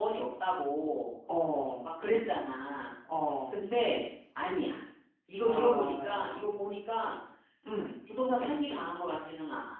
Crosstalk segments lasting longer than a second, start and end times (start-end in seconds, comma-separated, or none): 5.4-6.8